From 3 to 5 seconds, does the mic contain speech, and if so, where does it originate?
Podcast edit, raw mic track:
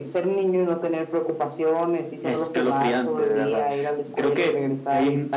echo only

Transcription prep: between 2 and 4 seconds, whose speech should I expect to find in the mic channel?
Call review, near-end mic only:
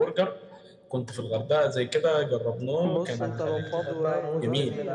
both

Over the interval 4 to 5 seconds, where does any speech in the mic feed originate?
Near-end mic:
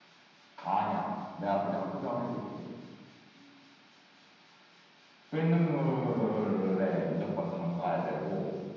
neither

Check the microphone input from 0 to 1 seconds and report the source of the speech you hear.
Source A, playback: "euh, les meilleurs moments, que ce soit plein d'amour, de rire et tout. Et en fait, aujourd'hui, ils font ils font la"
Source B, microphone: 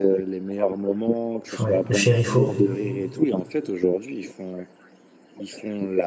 echo only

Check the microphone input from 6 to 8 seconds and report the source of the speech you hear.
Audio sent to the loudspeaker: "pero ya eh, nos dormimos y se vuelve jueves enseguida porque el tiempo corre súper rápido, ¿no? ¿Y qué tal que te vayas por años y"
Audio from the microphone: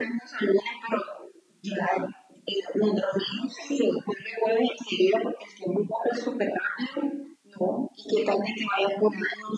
echo only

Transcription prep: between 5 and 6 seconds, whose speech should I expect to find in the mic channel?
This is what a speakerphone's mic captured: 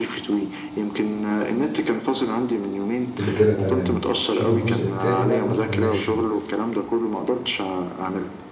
both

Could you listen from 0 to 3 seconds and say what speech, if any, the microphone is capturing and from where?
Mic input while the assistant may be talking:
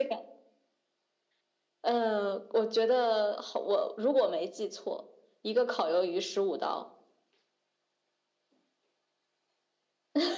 echo only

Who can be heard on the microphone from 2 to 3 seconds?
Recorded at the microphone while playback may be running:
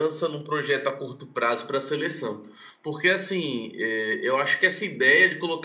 echo only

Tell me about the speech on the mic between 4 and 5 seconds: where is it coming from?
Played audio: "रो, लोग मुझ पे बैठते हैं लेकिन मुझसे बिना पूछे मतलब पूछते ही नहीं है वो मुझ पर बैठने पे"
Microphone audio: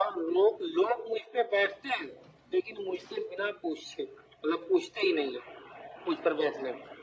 echo only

